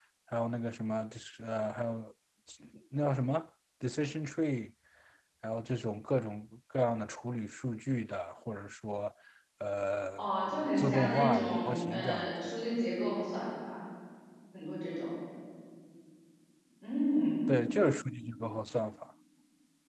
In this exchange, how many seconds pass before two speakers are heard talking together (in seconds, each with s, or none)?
10.8 s